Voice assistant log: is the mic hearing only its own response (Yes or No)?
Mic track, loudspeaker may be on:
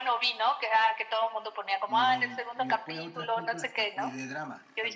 No